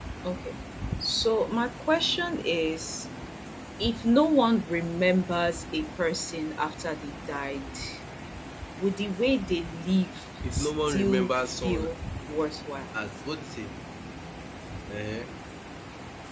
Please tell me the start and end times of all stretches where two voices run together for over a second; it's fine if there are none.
10.5-11.9

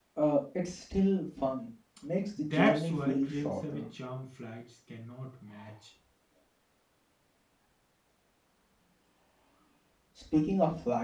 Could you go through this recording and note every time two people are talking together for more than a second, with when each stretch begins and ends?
2.5-3.8

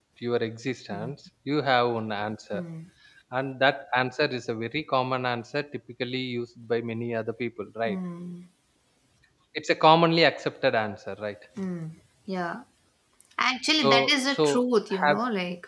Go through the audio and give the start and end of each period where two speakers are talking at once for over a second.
13.8-15.2

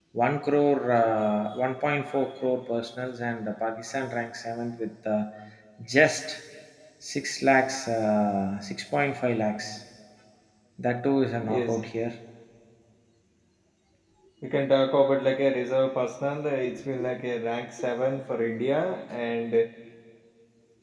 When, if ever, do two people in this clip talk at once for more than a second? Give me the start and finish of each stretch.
none

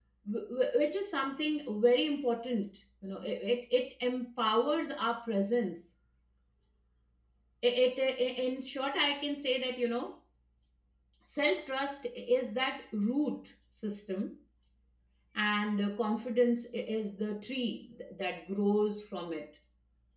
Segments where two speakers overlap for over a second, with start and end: none

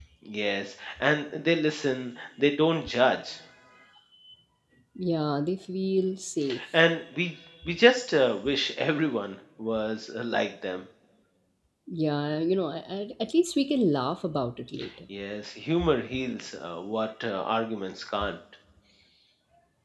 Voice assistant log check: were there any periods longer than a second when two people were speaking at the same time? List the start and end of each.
none

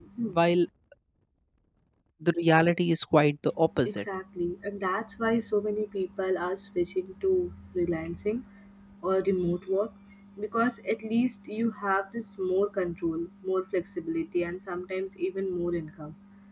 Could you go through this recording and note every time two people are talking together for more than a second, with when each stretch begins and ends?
none

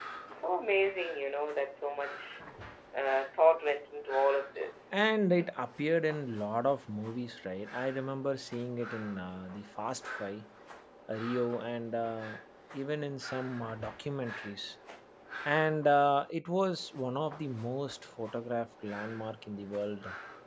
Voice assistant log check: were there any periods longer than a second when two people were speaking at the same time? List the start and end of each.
none

